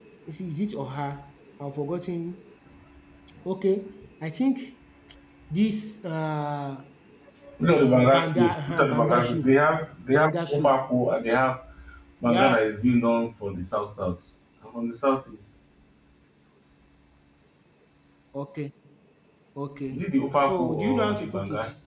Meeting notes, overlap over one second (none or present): present